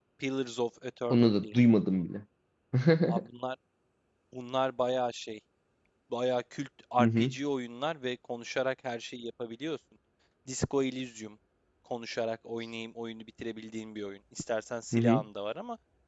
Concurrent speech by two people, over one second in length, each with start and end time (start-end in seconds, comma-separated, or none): none